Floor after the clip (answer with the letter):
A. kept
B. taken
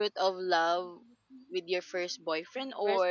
A